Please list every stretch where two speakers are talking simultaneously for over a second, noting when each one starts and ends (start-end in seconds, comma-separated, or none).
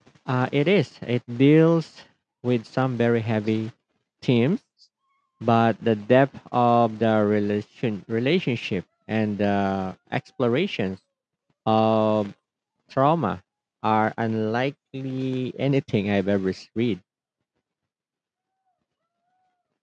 none